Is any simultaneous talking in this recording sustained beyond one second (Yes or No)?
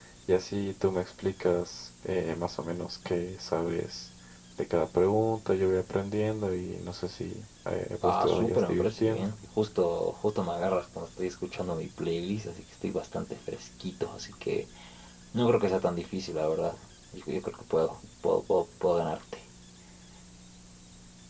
Yes